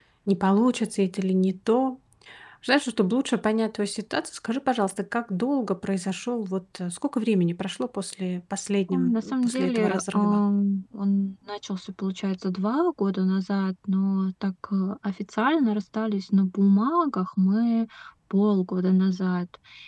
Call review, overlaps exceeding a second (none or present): present